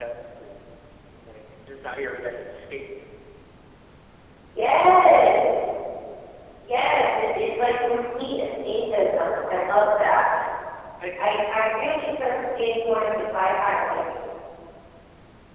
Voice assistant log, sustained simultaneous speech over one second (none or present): none